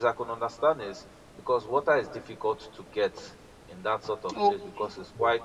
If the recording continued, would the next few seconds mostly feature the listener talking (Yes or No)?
No